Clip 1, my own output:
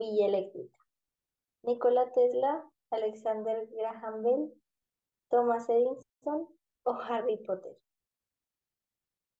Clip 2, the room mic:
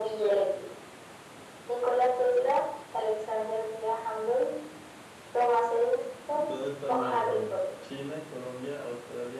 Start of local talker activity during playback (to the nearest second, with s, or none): 6 s